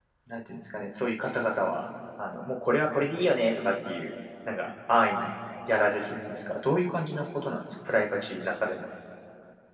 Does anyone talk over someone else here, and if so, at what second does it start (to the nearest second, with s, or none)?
none